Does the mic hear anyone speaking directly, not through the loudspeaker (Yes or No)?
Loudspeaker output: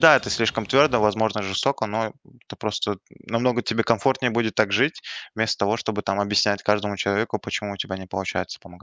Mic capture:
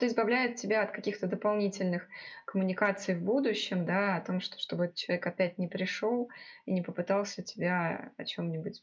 Yes